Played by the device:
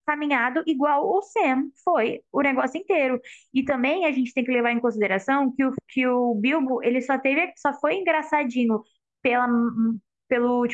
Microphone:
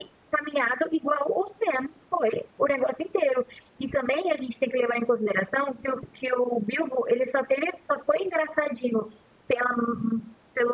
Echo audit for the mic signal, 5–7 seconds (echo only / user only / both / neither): echo only